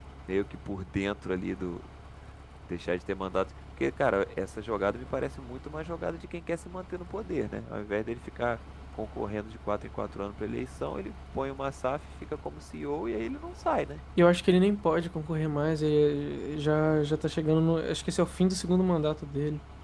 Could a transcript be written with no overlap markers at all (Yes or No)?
Yes